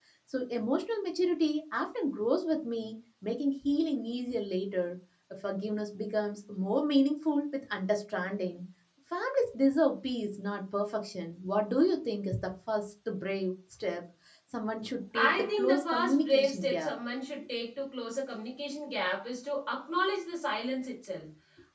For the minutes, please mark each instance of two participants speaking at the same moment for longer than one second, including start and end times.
15.2-16.9

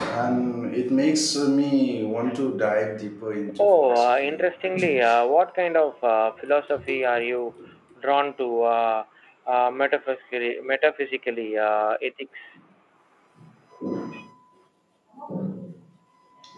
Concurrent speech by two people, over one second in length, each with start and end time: 3.6-5.0

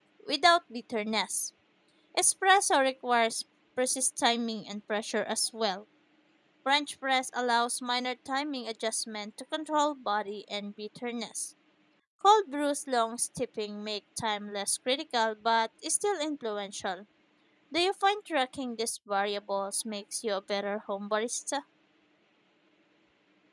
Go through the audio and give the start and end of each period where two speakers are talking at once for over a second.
none

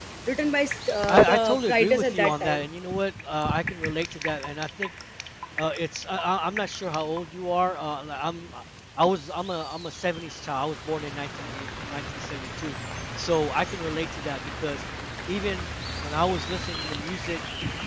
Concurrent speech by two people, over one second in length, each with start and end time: 1.1-2.6

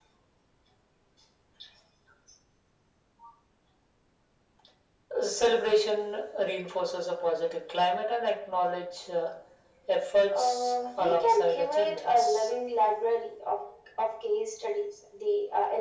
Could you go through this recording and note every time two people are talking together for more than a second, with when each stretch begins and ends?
10.3-12.5

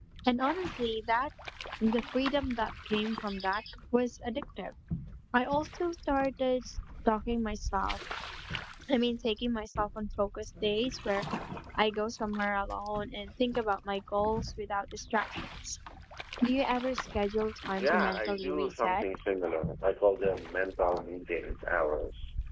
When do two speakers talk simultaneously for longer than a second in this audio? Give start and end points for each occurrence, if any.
17.8-19.0

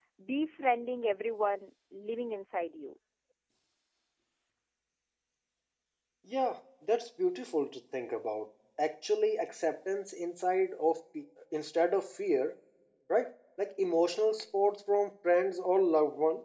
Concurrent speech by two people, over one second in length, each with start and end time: none

